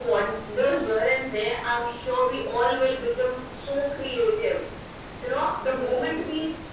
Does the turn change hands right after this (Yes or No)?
No